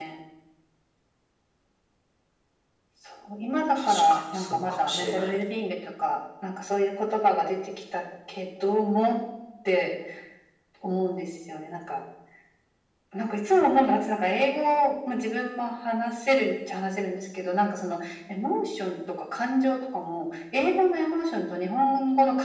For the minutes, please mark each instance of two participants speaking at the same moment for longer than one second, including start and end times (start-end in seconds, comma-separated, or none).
3.8-5.3